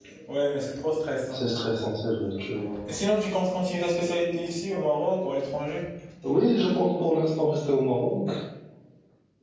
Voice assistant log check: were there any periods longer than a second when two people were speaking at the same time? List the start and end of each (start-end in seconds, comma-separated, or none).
none